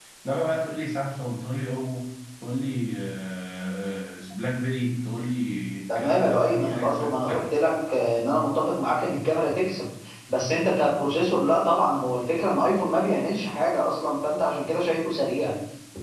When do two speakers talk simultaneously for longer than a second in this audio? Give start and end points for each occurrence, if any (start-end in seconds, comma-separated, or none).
6.0-7.4